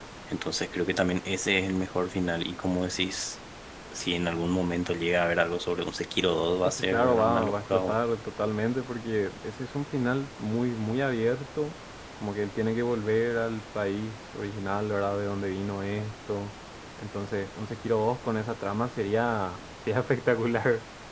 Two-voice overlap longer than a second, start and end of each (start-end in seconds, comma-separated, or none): 6.7-8.0